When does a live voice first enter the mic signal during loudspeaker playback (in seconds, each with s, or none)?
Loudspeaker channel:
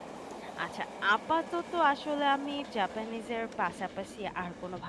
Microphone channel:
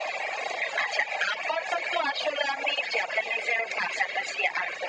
none